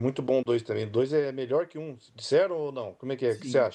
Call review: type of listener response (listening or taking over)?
taking over